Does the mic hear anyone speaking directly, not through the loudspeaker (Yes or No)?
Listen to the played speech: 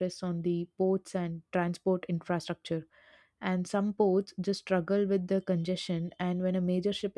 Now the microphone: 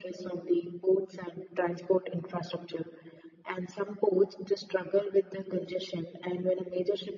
No